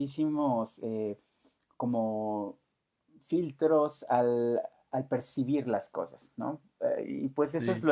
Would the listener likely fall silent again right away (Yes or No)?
Yes